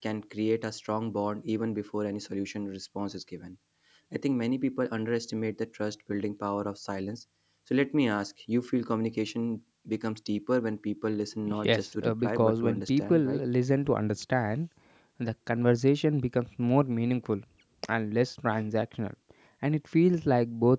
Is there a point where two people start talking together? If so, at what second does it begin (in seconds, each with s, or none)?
11.6 s